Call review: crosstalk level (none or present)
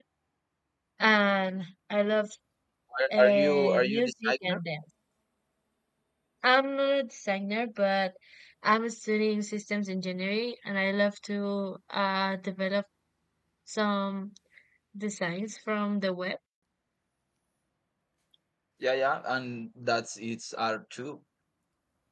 present